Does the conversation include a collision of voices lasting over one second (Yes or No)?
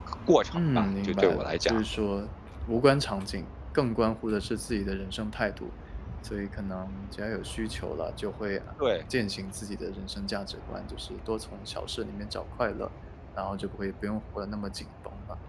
Yes